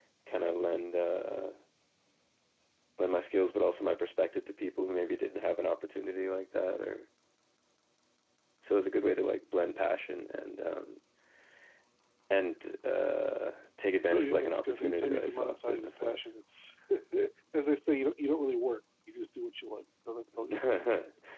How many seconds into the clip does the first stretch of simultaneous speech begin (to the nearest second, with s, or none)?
14 s